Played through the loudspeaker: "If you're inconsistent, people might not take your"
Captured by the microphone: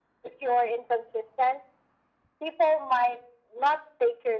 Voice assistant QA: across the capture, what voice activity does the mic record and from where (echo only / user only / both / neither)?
echo only